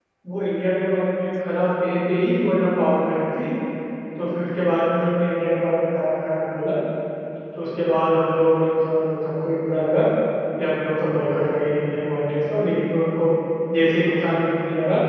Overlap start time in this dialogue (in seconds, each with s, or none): none